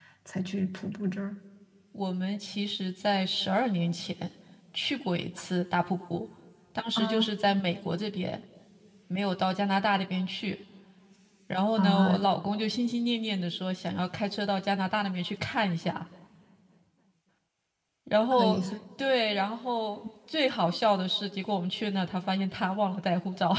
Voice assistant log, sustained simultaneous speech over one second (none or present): none